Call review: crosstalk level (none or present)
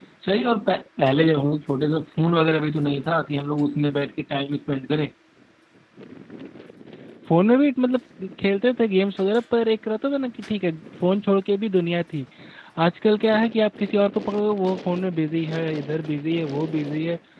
none